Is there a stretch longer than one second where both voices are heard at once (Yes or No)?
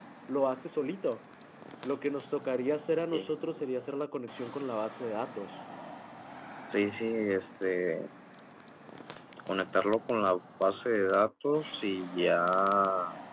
No